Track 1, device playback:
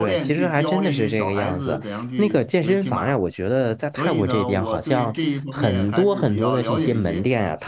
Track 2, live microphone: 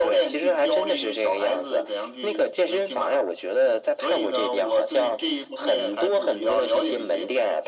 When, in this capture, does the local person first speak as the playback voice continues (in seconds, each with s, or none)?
none